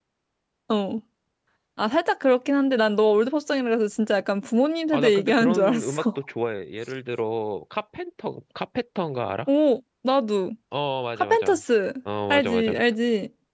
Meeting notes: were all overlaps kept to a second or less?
No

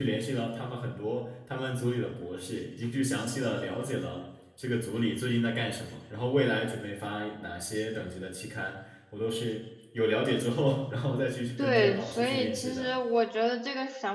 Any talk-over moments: Yes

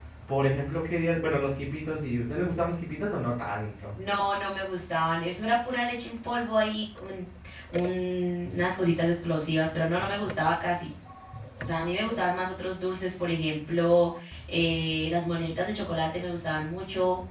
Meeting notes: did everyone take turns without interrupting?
Yes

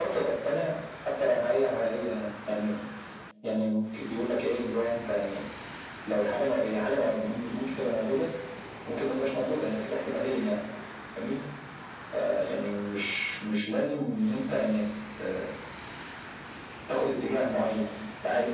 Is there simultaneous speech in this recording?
No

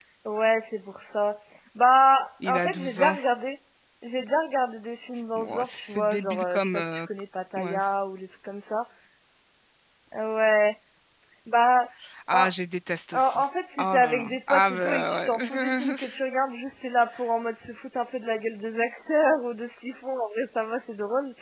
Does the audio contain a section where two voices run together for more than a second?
Yes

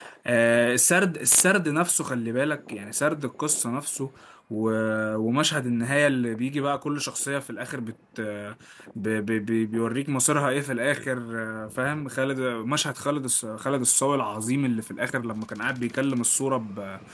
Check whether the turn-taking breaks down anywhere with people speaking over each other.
No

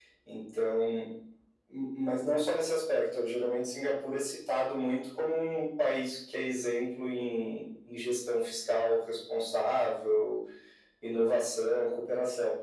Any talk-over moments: No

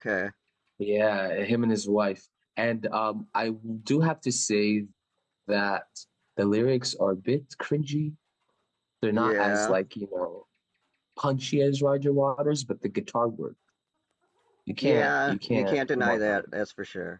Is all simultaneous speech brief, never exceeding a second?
No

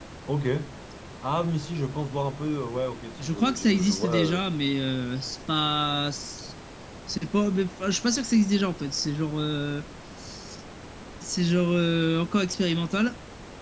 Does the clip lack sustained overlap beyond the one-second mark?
No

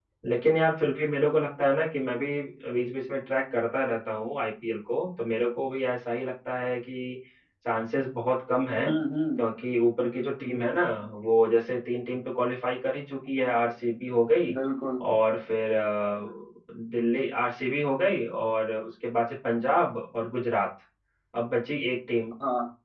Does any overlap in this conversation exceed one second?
No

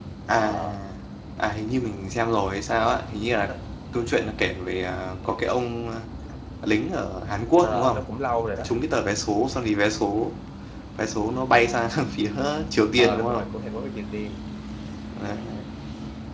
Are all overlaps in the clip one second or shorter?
Yes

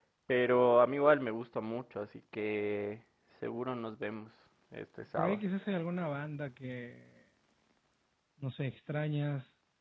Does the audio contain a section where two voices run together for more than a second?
No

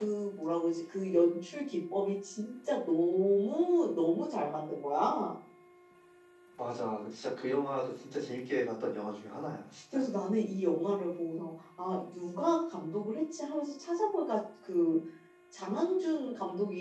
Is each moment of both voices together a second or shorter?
Yes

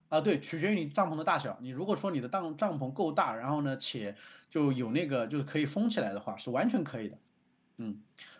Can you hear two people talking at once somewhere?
No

